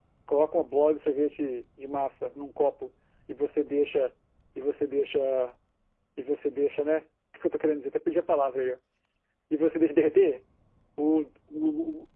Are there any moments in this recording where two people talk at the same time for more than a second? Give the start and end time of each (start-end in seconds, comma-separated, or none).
none